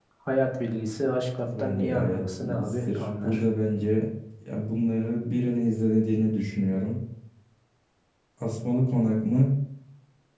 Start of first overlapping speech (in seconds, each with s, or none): 1.4 s